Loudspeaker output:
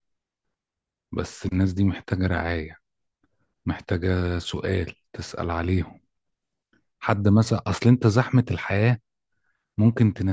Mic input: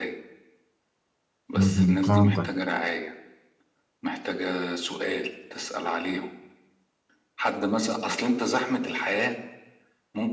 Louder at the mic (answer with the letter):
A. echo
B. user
B